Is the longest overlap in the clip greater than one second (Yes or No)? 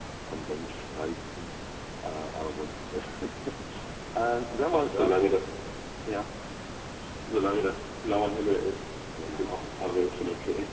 No